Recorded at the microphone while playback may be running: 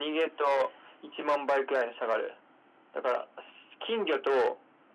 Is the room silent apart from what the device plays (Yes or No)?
Yes